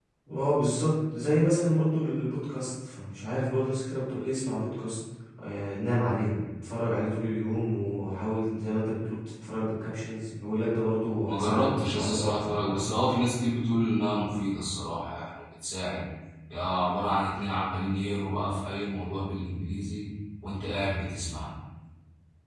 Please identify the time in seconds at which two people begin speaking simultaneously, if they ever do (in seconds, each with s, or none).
11.3 s